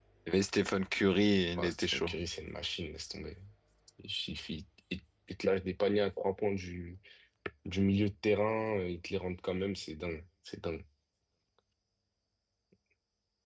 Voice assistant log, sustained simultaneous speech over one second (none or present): none